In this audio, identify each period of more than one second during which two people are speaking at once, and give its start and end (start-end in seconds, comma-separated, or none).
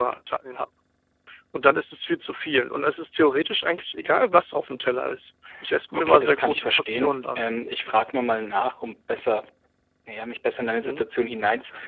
5.9-7.5